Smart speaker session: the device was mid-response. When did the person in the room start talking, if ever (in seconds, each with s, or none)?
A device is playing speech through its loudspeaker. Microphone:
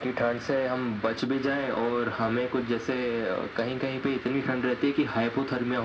none